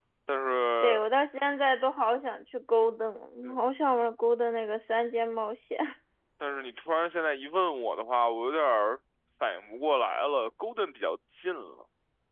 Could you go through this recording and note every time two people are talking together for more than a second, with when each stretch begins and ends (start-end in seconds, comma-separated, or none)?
none